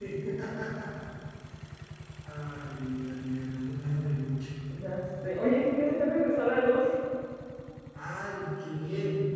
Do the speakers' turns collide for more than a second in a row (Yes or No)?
No